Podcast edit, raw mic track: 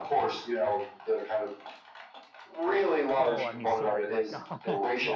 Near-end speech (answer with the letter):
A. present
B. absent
A